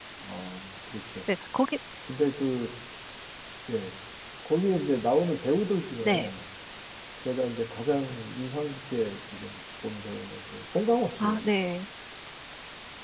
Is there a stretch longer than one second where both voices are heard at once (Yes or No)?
No